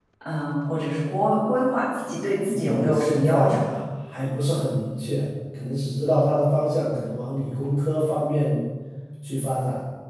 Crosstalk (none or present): present